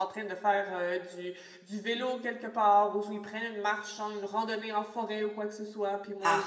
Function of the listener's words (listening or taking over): taking over